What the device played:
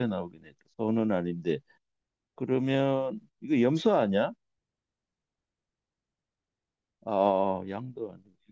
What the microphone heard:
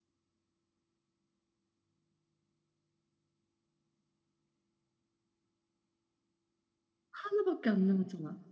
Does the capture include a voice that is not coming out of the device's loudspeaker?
Yes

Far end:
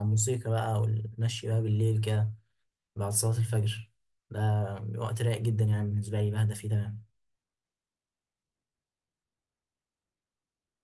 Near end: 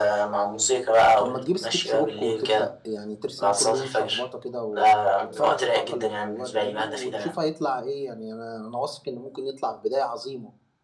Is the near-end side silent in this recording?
No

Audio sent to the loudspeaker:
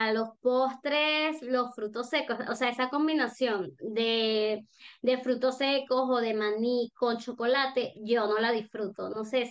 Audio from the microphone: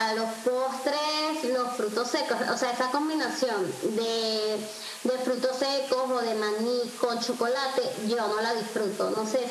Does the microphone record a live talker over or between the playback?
No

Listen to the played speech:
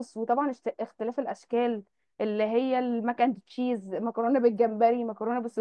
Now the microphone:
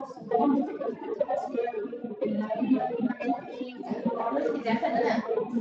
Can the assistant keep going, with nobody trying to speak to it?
No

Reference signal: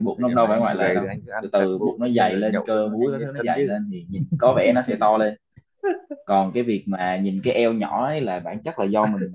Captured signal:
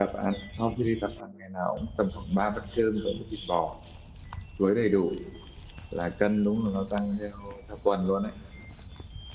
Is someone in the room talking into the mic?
Yes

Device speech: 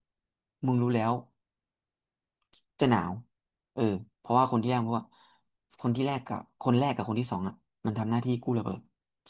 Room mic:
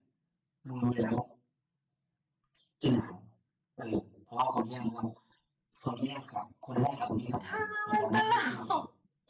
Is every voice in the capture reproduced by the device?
No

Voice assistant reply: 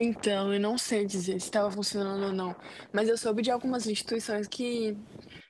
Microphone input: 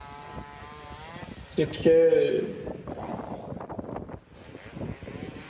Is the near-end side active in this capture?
Yes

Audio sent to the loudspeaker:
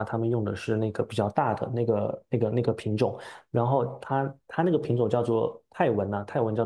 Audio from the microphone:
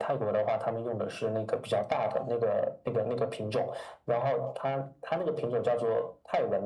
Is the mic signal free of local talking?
Yes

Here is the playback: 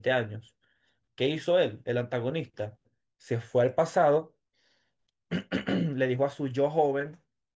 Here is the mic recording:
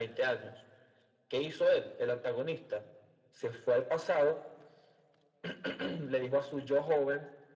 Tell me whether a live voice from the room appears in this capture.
No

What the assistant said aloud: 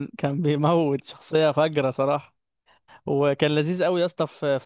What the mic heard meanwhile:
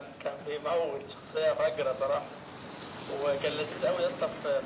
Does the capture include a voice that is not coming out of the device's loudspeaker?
No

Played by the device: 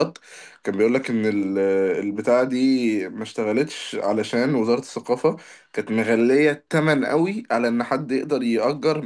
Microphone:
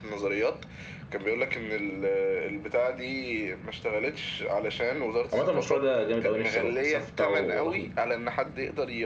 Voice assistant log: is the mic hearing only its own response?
No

